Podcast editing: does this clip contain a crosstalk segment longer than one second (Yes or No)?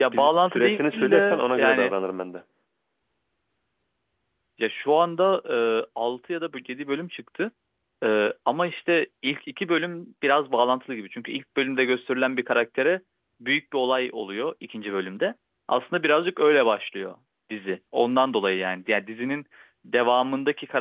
Yes